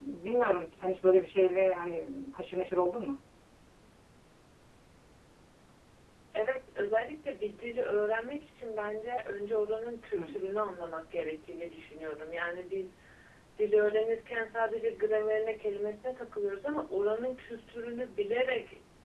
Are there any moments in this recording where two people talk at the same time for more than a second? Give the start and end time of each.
none

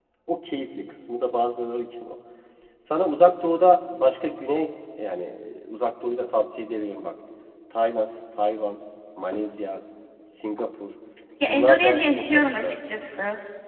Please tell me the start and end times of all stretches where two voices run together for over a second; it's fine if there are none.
11.5-12.7

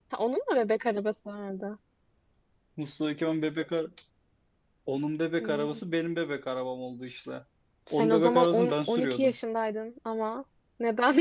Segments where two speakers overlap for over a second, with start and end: 7.9-9.4

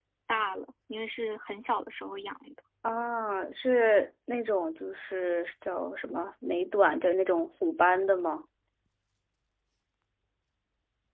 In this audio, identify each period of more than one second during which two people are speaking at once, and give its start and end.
none

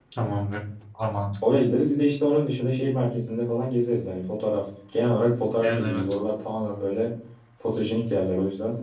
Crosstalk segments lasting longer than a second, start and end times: none

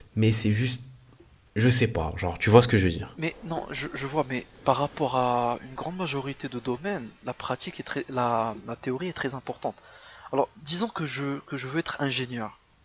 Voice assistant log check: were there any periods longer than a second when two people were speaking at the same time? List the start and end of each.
none

